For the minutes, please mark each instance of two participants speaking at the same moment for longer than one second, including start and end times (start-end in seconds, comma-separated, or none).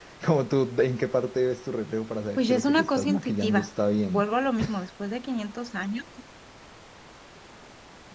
2.4-3.7